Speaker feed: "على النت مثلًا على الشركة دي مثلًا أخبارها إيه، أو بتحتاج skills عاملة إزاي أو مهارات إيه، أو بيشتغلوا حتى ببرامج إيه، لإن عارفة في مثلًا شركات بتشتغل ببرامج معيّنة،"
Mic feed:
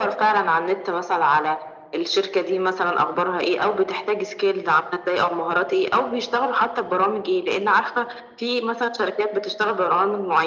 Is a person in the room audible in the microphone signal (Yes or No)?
No